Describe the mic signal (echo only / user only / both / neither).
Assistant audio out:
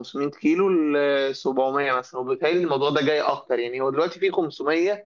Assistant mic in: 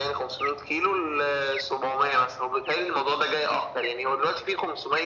echo only